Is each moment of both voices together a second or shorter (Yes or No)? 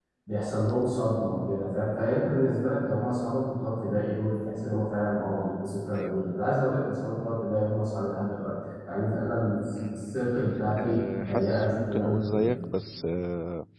No